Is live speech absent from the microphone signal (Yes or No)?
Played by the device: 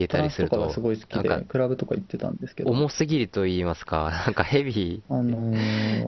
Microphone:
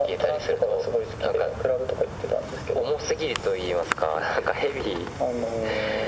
Yes